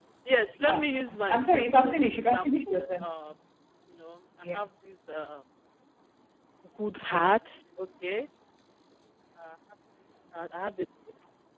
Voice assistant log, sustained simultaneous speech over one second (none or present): present